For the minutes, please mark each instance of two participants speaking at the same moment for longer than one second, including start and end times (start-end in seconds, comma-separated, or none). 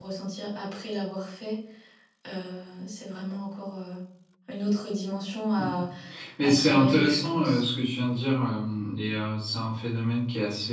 6.4-7.6